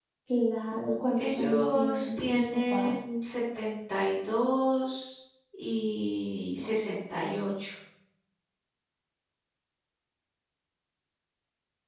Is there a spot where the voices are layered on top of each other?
Yes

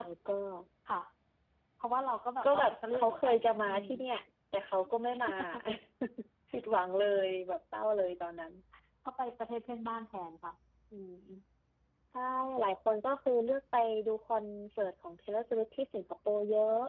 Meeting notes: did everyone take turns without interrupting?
No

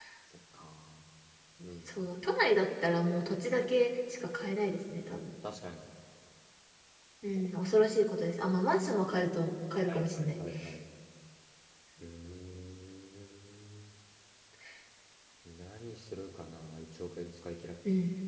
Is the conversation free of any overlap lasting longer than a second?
Yes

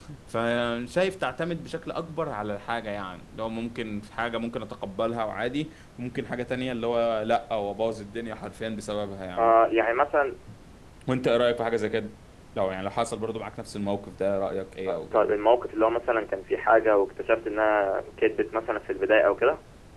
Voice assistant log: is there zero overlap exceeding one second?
Yes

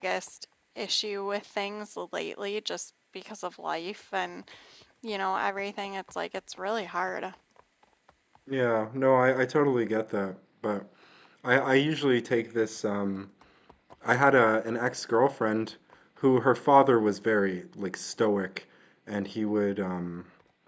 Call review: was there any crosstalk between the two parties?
No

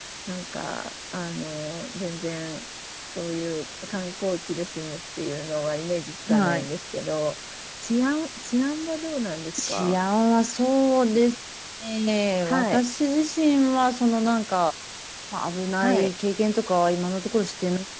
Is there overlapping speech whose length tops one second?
No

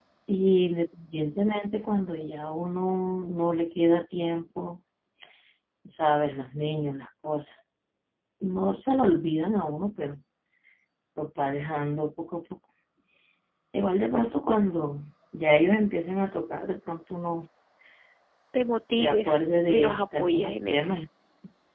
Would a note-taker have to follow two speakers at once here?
Yes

